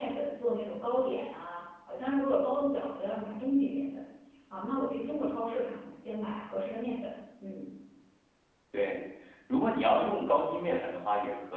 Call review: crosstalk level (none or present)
none